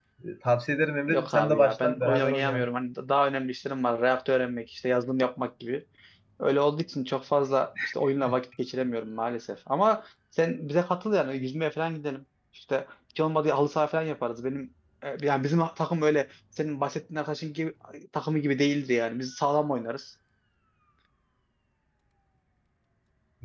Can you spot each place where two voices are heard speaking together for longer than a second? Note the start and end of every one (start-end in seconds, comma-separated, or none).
1.1-2.7